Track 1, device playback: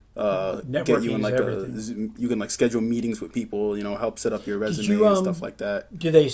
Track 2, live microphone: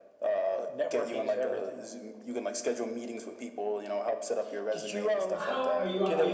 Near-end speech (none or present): present